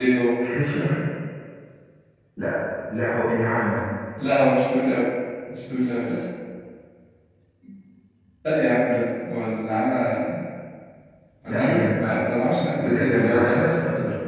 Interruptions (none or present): present